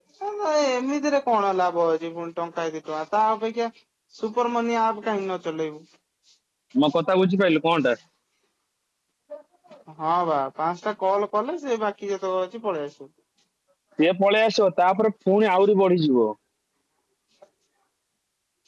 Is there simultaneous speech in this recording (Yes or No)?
No